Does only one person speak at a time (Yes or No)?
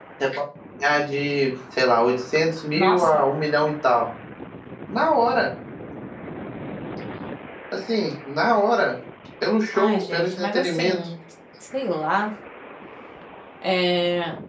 No